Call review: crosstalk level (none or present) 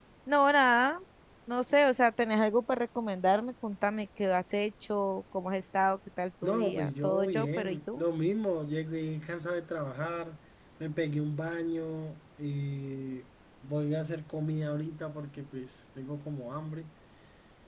present